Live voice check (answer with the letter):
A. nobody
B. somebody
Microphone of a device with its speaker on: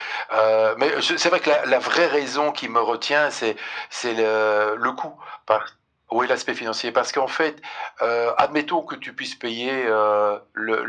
A